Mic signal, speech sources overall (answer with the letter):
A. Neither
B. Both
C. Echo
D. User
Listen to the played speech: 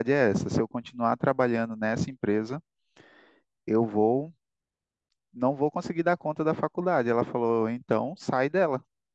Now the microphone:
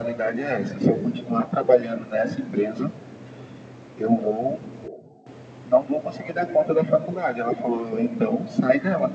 C